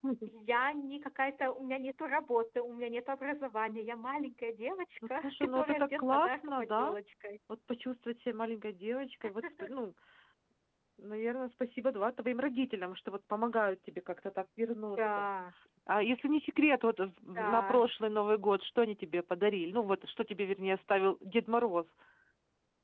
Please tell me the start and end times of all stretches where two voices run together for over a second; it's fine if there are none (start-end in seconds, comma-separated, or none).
5.2-7.0